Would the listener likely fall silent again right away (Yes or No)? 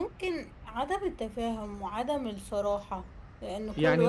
No